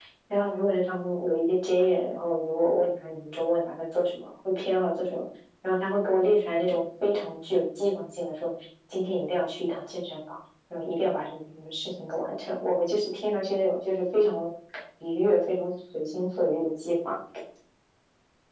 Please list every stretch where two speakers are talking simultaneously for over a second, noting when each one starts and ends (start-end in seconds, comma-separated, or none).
none